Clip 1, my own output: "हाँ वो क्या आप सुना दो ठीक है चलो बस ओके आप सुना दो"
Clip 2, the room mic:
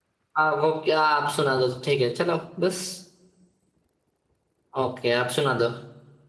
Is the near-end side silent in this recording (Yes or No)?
Yes